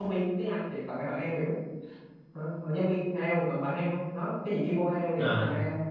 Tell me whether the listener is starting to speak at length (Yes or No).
Yes